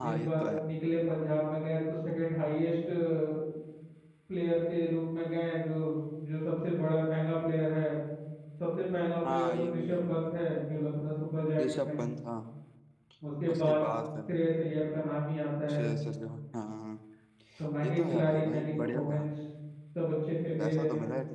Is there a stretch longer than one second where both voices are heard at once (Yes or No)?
Yes